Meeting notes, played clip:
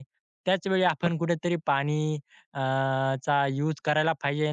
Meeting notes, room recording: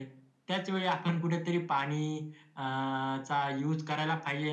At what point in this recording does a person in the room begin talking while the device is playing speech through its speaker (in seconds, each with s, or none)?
none